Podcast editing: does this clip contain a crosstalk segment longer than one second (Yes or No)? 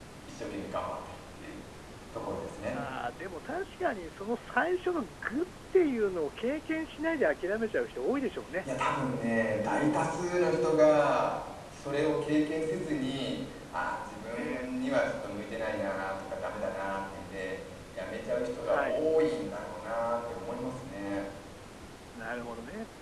No